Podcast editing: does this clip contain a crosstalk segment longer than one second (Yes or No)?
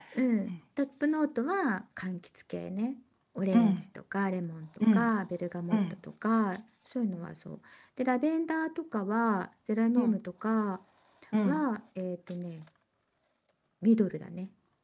No